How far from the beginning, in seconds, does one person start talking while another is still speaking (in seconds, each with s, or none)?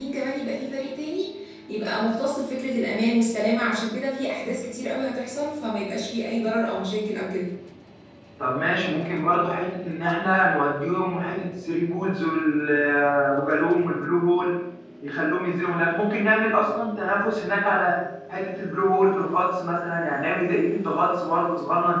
none